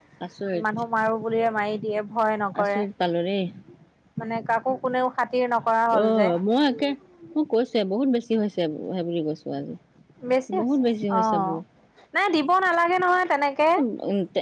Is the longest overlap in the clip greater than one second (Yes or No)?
No